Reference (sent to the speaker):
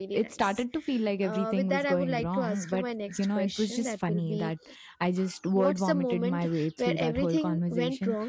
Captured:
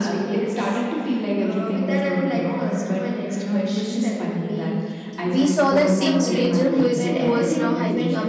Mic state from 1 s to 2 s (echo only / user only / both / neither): echo only